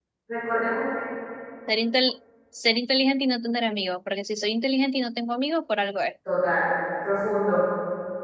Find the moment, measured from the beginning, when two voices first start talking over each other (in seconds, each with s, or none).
none